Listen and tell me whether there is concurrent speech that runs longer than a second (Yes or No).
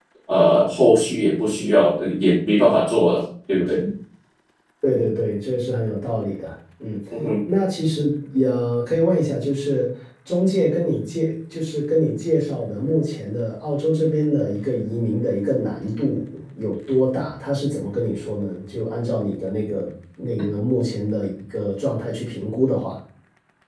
No